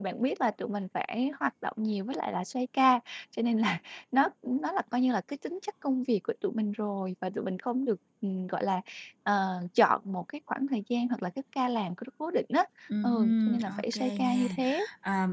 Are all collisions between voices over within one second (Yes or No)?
No